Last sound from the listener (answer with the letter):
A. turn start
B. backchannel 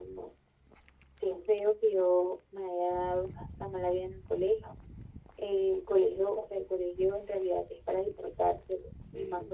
B